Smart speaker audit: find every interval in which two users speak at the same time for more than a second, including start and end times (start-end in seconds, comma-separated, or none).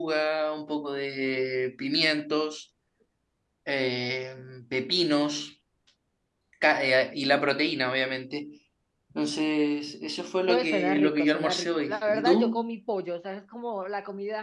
10.5-12.6